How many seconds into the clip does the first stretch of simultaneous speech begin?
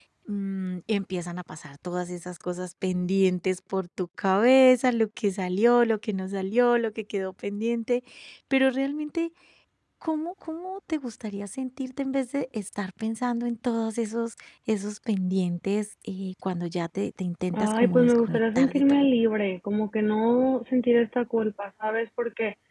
17.5 s

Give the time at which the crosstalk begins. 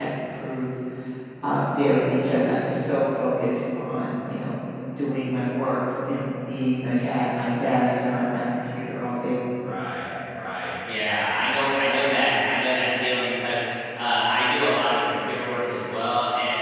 none

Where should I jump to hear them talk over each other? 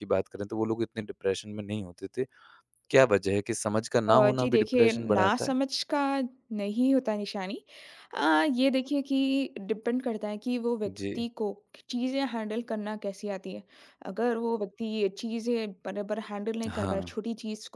4.1 s

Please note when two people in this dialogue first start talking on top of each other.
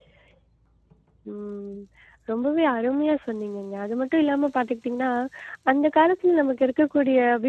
none

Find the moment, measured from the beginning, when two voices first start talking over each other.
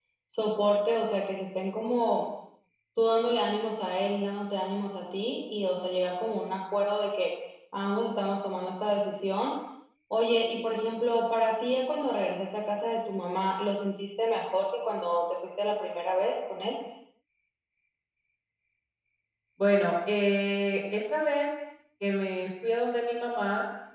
none

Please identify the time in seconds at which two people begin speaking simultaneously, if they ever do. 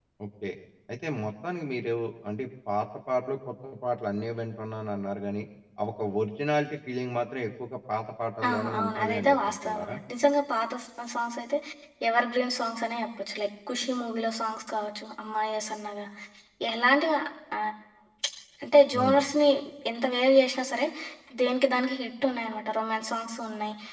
8.5 s

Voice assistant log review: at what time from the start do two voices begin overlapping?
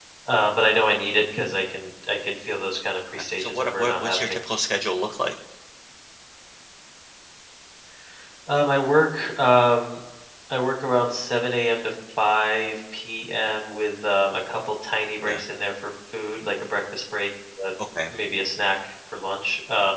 3.1 s

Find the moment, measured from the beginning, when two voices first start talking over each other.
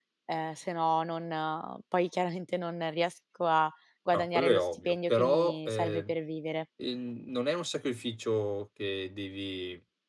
4.1 s

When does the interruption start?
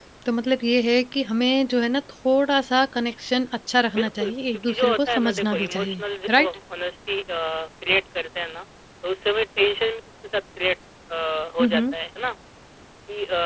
3.9 s

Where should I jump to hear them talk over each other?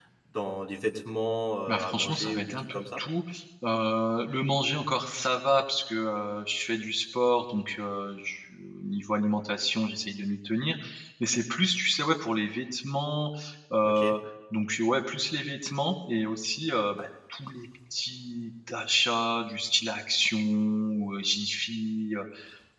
1.7 s

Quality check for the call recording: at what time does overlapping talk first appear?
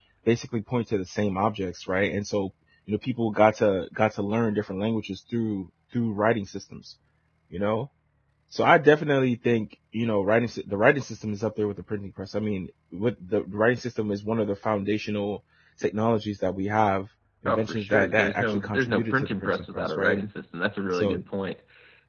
17.5 s

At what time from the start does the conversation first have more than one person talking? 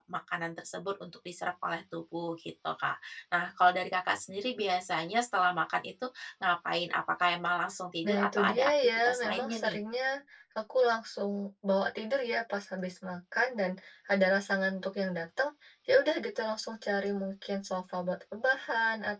8.0 s

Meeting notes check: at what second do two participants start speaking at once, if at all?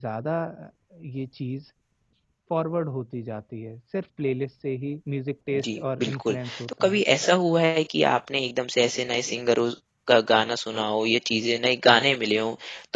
5.5 s

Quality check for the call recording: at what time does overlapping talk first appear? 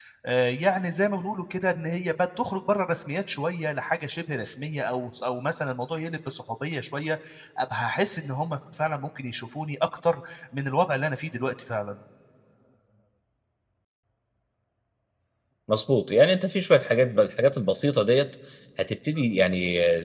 none

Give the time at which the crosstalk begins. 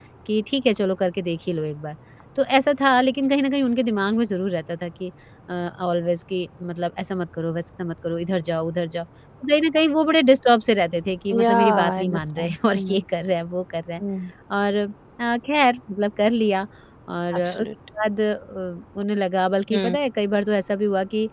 11.3 s

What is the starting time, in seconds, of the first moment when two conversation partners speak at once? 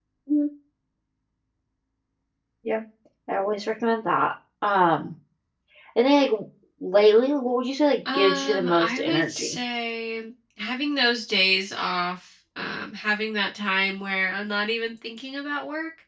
8.0 s

